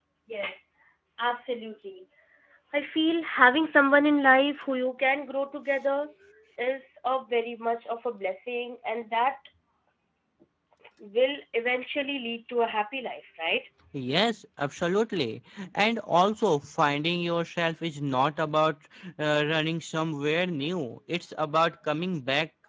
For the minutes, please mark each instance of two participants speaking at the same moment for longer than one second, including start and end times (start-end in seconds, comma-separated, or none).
none